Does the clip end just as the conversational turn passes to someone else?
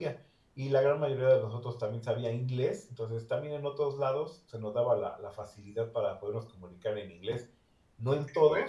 No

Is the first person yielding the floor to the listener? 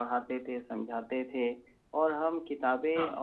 No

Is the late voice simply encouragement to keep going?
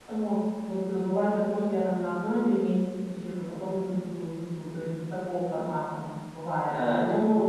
No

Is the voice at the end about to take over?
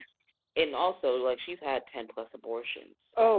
Yes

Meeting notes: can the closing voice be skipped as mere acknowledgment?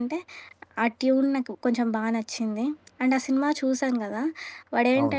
Yes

